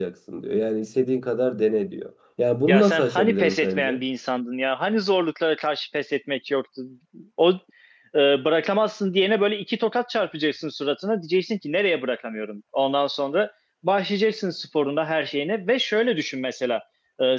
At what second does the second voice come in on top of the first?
2.7 s

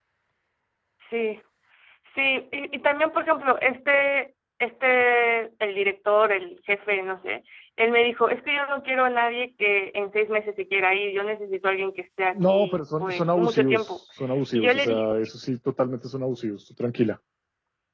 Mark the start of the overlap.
12.3 s

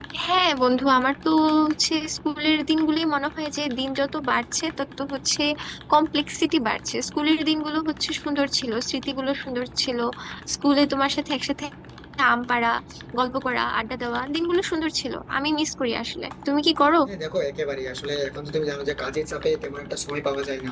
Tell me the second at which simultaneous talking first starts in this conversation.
none

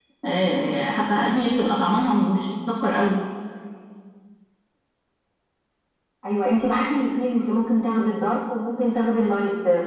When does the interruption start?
none

